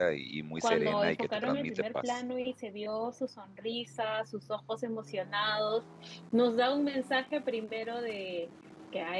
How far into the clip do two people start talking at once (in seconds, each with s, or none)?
0.6 s